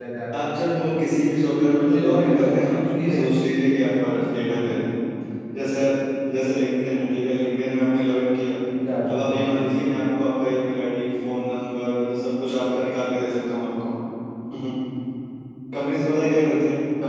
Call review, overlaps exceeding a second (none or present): present